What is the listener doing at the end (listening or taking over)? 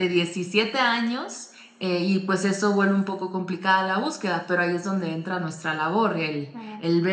listening